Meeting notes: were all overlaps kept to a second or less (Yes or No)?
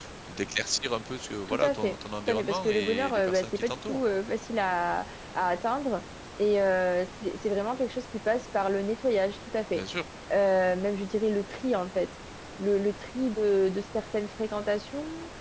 No